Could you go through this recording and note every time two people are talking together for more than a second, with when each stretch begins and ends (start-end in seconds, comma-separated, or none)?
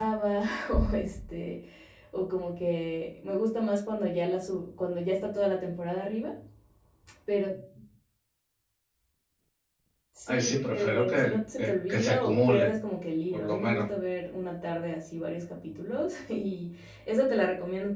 10.3-12.7